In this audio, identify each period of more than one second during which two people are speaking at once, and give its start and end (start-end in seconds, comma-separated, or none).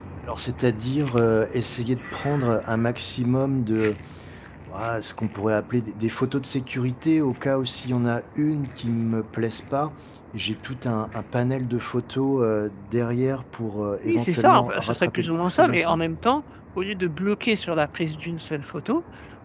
14.0-16.0